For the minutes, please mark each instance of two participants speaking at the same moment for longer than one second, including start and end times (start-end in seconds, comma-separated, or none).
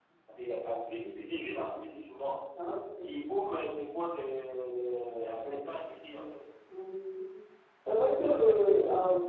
none